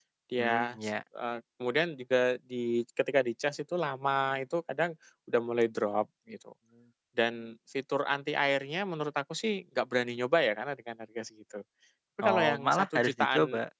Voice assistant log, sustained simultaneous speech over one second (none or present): present